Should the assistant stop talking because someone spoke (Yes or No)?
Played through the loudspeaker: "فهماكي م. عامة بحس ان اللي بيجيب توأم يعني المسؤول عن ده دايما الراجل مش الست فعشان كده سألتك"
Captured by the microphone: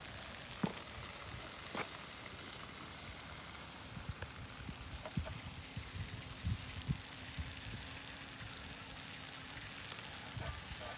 No